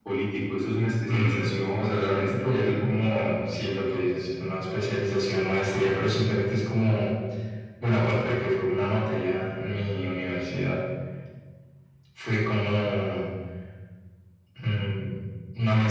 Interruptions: present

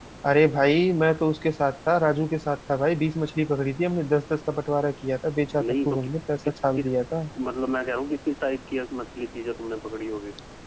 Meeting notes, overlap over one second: present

